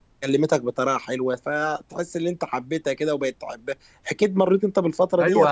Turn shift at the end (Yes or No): Yes